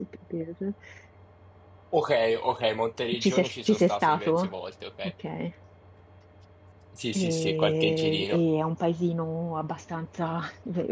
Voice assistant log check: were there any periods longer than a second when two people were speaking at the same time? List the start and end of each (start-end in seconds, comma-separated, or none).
3.2-4.5, 7.2-8.4